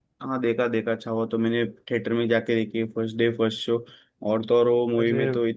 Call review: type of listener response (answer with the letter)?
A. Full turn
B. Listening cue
B